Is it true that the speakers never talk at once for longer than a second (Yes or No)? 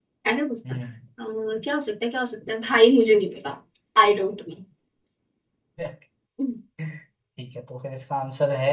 Yes